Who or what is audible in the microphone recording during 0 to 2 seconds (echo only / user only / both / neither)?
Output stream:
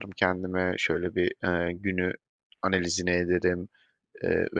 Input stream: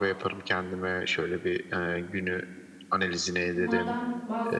echo only